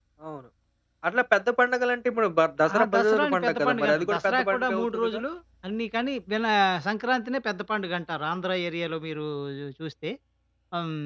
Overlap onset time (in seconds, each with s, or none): 2.6 s